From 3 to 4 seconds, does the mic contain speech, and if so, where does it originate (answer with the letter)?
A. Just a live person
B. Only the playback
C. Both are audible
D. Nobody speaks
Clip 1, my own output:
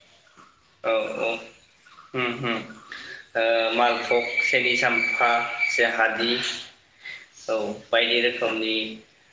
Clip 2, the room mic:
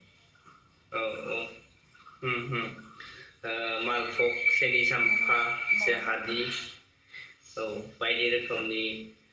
B